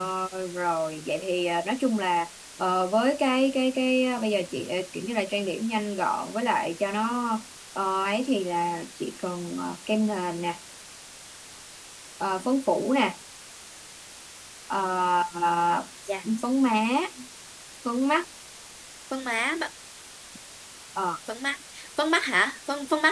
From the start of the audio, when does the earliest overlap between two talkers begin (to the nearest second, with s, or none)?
none